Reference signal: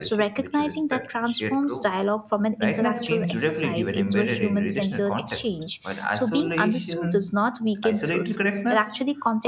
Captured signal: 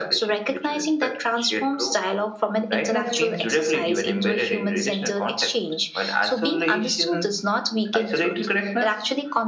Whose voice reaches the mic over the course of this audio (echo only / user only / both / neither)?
echo only